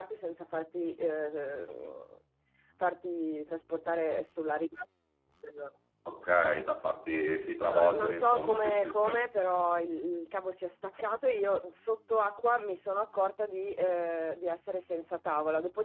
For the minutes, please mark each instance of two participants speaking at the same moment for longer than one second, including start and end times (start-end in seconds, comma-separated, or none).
7.6-9.1